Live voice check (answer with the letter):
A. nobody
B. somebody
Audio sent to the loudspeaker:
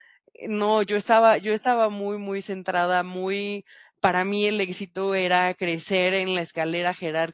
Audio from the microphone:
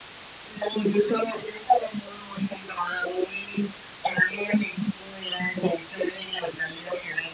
A